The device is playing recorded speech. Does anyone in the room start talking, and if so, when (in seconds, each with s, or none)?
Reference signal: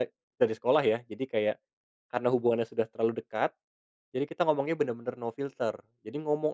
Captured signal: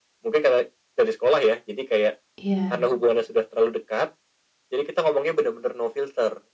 2.4 s